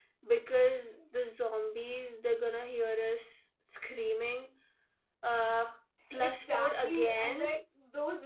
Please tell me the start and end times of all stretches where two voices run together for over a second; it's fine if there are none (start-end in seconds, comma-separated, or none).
6.1-7.5